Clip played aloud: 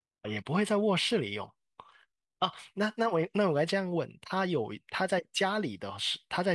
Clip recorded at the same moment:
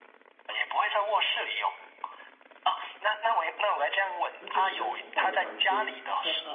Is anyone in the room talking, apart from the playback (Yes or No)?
Yes